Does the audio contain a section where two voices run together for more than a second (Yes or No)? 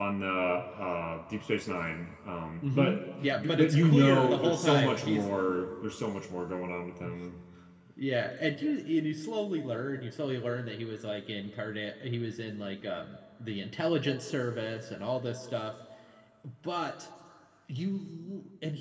Yes